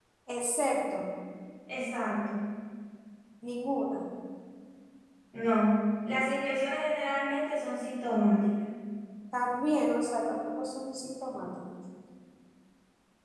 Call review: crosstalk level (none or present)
none